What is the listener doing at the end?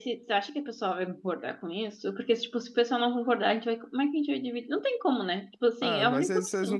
taking over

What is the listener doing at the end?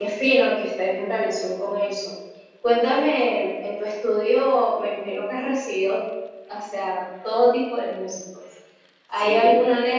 listening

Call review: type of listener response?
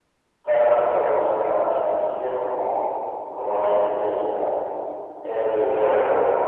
listening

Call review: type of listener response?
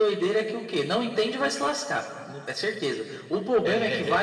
listening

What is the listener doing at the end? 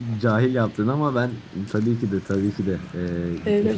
taking over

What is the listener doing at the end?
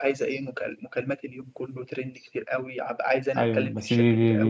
taking over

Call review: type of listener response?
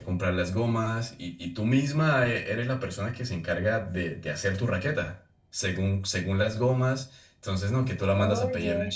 listening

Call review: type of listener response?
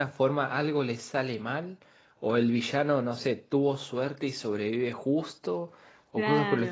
taking over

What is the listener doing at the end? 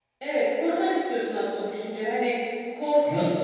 listening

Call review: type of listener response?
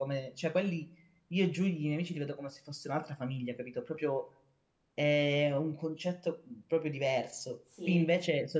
listening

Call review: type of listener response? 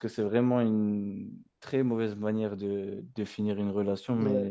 taking over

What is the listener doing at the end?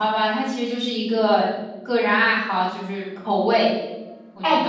taking over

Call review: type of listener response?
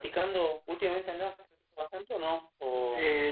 taking over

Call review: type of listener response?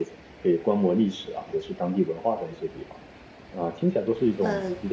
listening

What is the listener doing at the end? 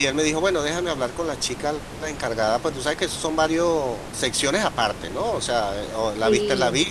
listening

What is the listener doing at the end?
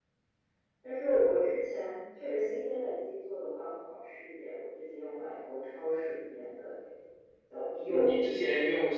taking over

